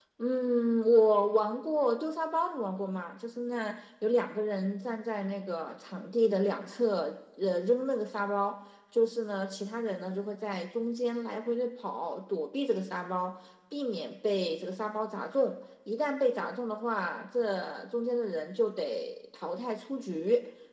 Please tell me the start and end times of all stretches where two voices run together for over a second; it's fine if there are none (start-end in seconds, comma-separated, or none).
none